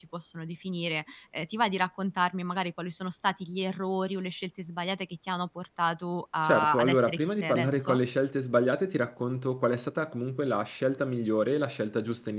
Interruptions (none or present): present